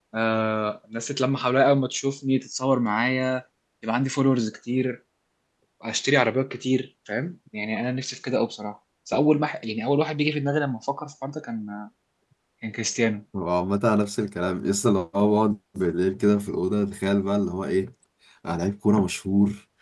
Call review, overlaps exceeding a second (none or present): none